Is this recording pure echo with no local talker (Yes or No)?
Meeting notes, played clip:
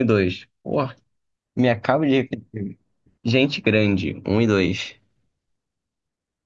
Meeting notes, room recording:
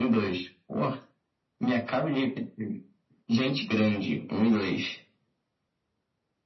Yes